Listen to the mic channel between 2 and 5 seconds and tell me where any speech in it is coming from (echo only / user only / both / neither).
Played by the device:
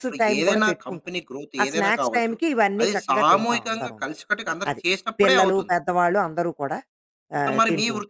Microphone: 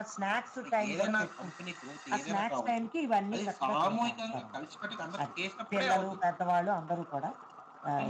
echo only